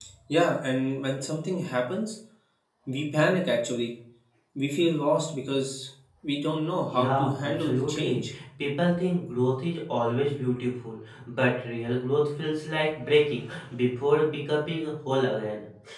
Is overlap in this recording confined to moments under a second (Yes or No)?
No